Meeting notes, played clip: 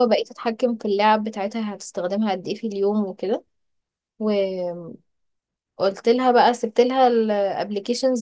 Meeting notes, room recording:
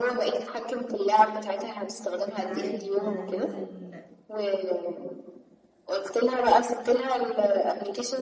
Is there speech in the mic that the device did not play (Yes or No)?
Yes